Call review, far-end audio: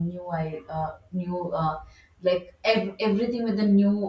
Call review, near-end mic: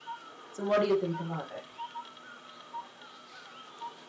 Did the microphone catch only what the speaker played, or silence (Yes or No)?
No